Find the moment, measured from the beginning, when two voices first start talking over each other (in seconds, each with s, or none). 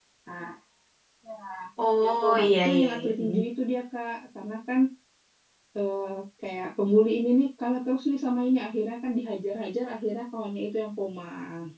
2.0 s